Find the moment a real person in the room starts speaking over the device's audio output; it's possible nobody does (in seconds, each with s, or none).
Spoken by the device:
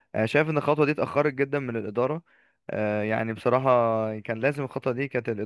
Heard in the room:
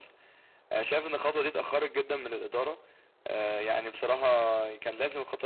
none